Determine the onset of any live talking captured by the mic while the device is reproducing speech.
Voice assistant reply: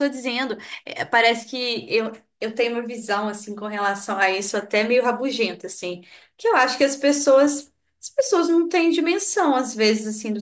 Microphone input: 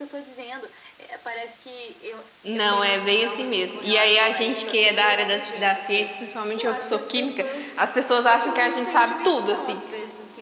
2 s

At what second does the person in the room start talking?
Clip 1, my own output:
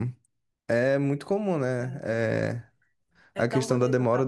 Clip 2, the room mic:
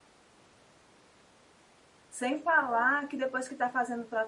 2 s

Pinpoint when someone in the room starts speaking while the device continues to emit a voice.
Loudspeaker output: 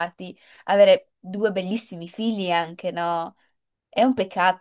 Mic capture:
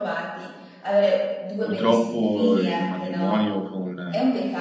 2 s

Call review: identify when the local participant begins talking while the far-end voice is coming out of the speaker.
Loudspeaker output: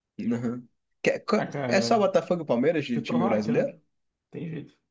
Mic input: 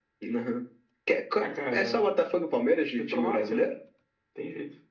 none

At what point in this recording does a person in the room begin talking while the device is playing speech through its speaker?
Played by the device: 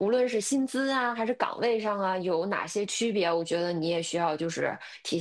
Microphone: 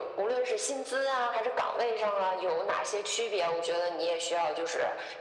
none

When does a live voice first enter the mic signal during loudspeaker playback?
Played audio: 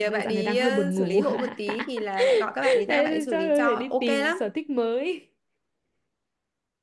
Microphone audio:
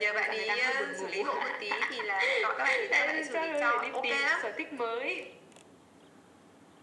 none

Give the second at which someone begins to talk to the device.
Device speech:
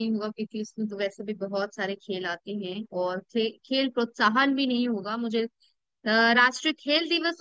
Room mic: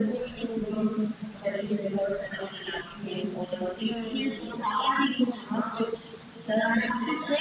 4 s

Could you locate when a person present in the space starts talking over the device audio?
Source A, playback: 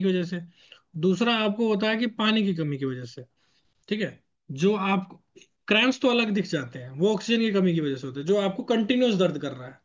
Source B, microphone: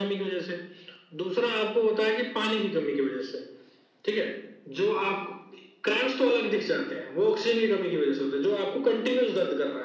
none

